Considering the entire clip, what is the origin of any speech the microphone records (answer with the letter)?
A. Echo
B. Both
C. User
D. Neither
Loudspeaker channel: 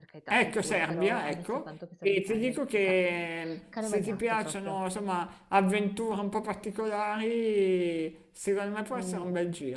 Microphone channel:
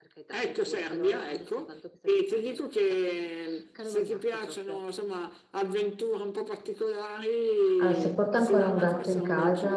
B